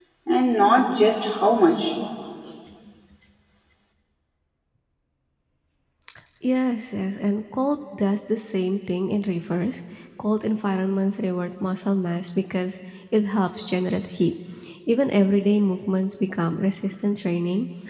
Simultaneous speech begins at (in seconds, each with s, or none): none